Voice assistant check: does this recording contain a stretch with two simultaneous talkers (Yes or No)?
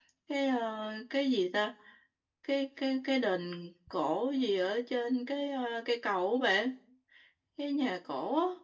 No